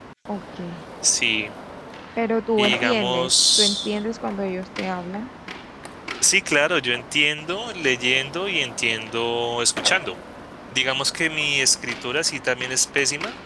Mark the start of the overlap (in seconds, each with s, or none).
2.6 s